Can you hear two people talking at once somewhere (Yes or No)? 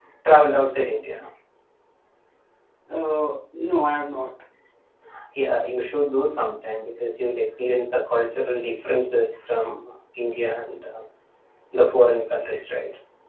No